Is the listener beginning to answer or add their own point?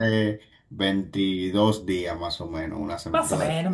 Yes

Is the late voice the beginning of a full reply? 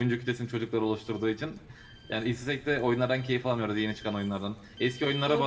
No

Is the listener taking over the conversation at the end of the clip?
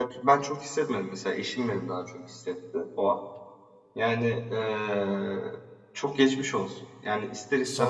No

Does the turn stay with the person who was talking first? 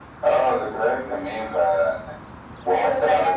No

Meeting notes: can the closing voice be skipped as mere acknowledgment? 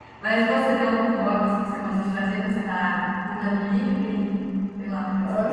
No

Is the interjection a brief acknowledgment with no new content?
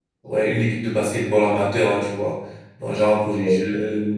Yes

